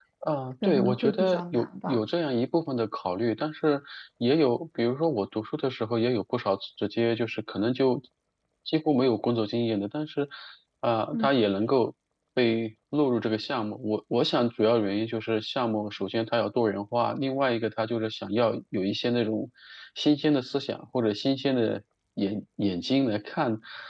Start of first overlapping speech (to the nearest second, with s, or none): 1 s